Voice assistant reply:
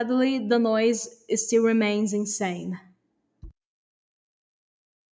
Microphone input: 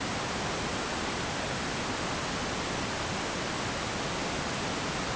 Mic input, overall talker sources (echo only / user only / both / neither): neither